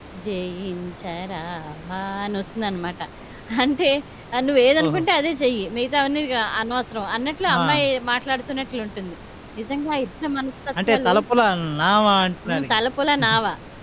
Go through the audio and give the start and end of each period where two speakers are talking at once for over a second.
none

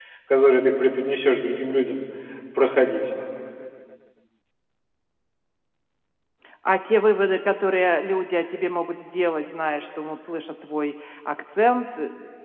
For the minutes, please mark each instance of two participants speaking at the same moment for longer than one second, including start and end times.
none

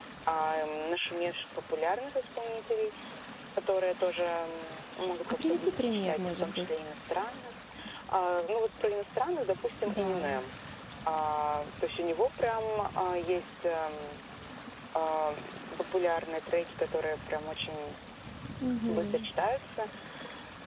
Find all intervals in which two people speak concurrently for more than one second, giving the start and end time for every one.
5.3-6.8

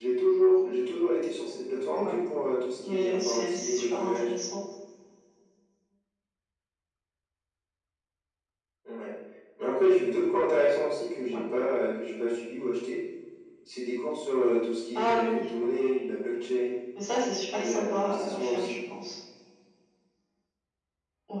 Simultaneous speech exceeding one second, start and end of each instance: 2.8-4.3, 17.5-18.8

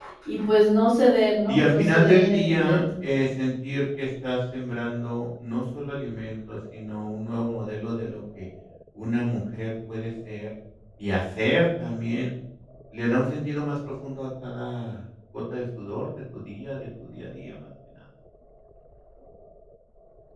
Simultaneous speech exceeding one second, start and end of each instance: 1.5-2.8

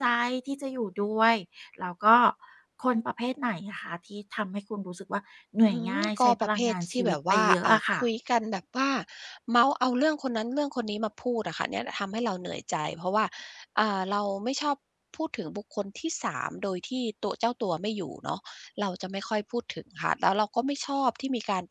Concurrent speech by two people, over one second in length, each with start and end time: 5.7-8.0

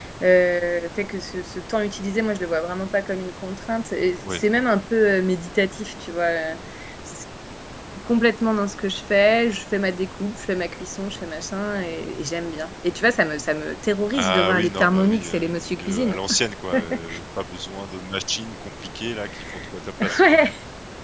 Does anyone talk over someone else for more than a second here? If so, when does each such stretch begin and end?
14.1-16.2

